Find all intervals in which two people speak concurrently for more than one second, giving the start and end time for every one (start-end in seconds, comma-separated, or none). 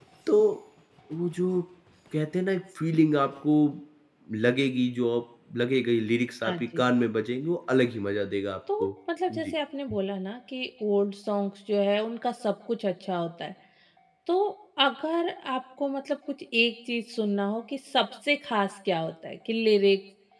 none